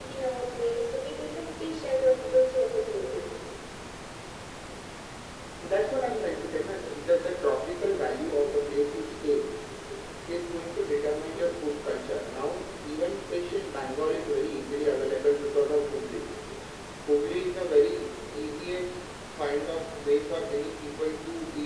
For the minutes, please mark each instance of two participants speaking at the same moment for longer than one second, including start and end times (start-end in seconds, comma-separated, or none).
none